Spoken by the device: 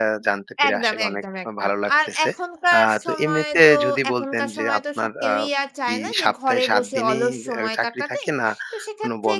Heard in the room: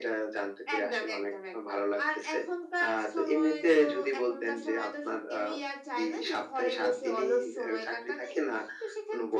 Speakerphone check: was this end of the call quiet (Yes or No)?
Yes